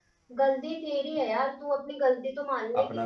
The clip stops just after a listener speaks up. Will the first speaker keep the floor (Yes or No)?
Yes